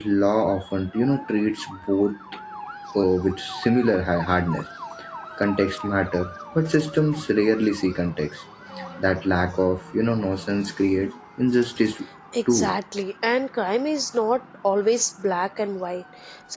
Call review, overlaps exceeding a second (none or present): none